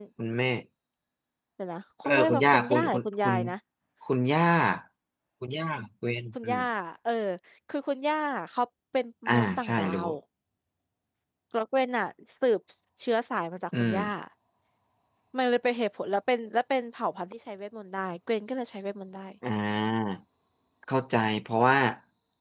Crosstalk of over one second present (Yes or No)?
Yes